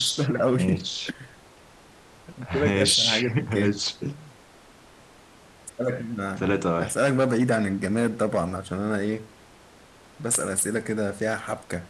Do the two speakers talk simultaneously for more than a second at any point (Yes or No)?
Yes